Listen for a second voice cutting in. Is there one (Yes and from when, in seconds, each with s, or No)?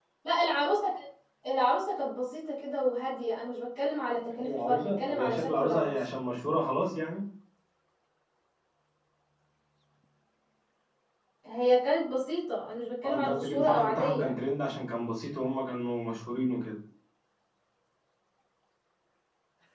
Yes, from 4.4 s